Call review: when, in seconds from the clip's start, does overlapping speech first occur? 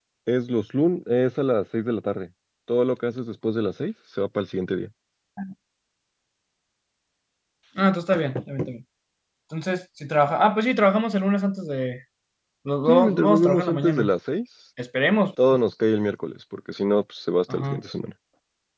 12.9 s

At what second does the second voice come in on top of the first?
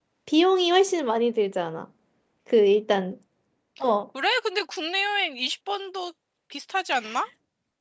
none

